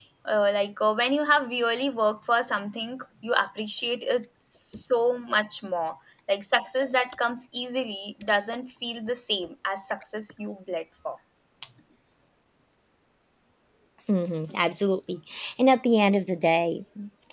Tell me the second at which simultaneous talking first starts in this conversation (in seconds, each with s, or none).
none